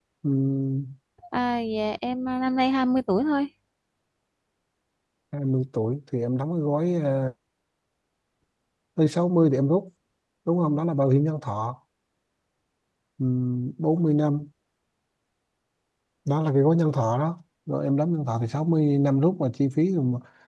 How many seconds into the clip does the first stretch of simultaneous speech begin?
none

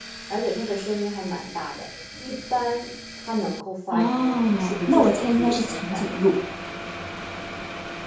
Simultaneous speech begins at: 3.9 s

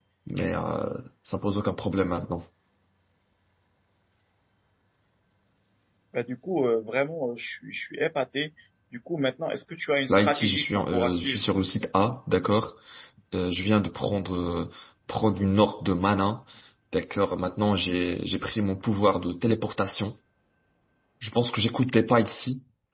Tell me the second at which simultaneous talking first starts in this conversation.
10.1 s

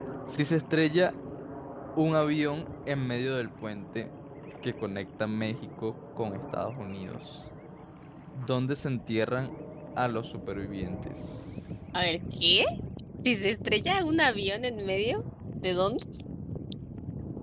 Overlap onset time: none

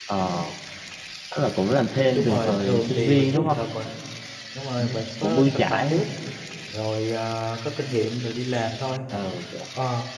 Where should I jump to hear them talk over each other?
2.1 s

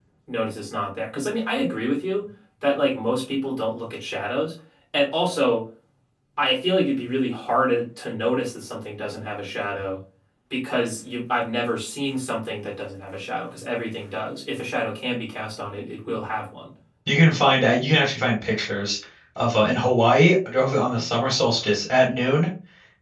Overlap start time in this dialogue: none

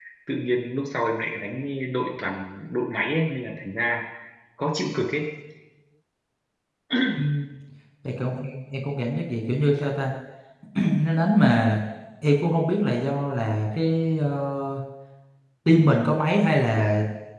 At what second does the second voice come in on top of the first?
none

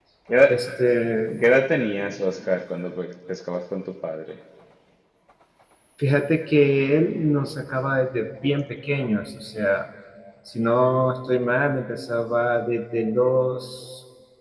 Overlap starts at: none

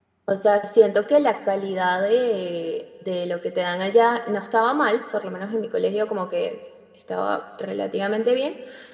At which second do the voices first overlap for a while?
none

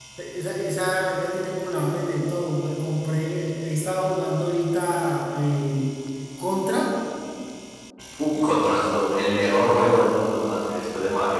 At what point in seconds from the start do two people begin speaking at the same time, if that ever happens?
none

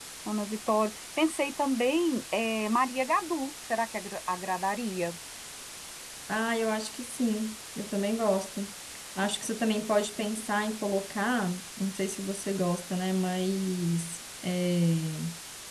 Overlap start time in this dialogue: none

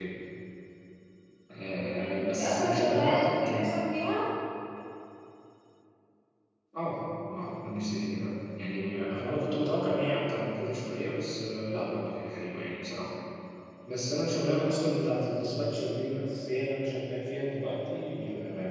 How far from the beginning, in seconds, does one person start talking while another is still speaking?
1.8 s

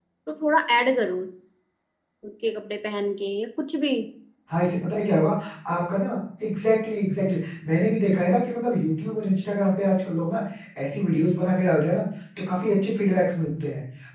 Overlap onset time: none

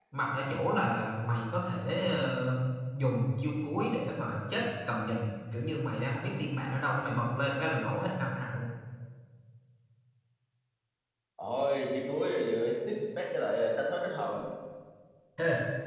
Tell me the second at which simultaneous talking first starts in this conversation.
none

